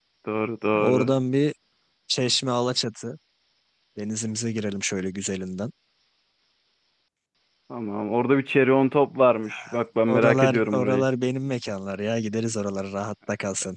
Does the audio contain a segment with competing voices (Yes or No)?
Yes